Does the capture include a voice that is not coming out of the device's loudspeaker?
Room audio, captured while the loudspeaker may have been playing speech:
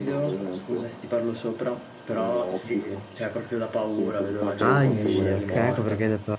Yes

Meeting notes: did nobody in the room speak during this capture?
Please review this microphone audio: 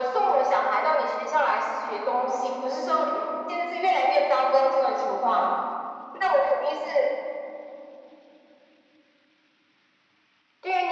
Yes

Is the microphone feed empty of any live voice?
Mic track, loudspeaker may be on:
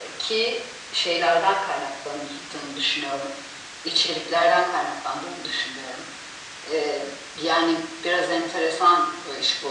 Yes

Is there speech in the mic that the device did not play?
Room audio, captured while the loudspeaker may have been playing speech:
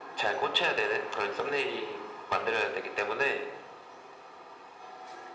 No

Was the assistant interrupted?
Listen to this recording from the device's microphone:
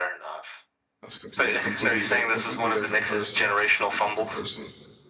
Yes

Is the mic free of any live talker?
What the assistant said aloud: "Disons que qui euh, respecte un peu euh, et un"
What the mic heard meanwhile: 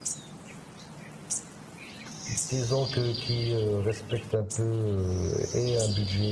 Yes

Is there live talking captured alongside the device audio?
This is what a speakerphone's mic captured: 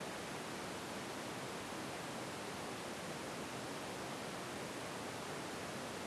No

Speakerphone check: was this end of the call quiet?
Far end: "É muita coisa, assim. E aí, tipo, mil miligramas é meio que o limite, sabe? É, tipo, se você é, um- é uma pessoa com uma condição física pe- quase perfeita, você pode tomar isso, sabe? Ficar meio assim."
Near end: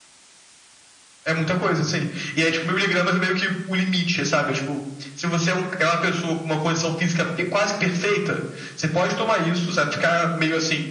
Yes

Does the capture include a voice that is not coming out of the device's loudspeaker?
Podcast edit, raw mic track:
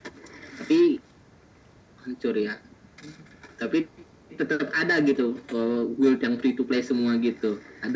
No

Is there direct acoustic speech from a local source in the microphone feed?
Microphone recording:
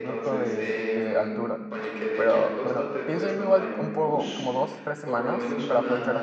Yes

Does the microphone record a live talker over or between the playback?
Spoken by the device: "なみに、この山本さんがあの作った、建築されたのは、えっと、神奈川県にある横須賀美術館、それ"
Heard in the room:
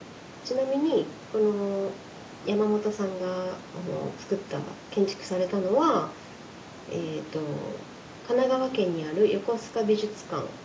No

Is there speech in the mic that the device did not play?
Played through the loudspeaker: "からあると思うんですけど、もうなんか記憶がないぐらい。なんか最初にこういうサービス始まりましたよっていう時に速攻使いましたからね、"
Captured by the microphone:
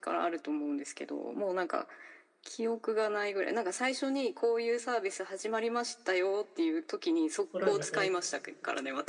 Yes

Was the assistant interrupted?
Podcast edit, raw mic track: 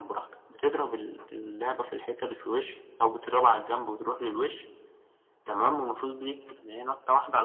No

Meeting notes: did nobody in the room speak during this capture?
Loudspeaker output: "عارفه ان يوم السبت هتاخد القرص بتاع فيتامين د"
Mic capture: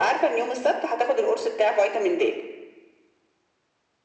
Yes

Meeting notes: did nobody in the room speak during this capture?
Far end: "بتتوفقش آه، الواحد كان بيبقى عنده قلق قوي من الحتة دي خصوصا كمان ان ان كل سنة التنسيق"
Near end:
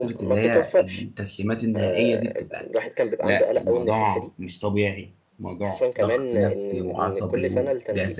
No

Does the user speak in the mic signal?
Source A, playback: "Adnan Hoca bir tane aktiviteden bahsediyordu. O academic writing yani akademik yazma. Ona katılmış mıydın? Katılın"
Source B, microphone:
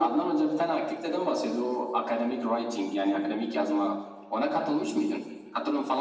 No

